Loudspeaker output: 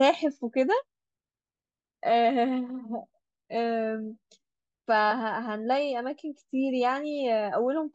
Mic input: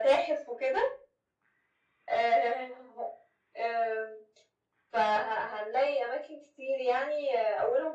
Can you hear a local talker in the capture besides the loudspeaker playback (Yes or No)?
No